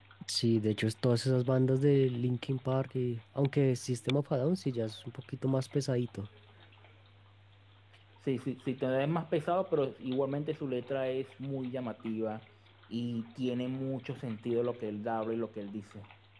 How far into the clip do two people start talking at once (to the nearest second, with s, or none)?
none